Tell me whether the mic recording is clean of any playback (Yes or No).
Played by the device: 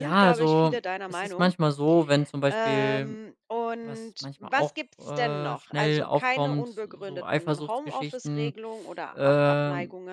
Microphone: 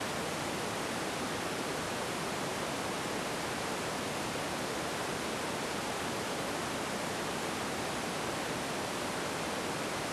Yes